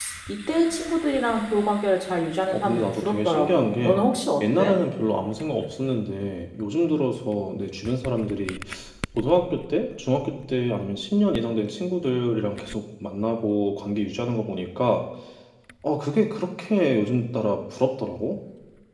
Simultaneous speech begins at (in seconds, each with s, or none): 2.5 s